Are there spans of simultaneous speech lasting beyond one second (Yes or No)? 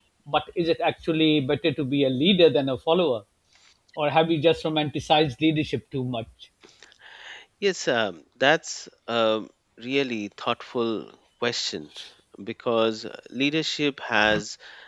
No